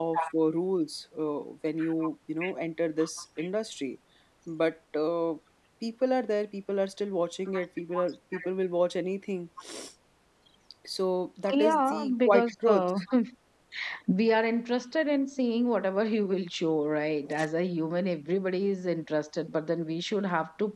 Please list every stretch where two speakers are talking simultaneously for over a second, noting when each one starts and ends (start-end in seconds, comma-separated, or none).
11.5-12.8